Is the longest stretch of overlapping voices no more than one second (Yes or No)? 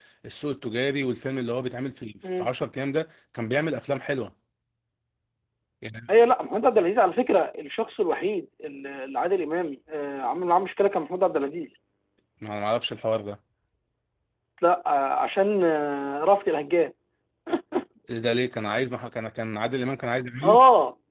Yes